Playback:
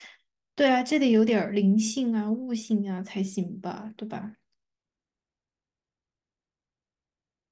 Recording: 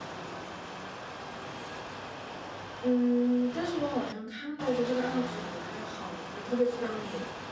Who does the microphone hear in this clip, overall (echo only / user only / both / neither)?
user only